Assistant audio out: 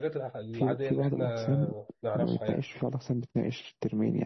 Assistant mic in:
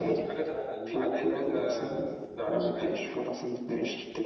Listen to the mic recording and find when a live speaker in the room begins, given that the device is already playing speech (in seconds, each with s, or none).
none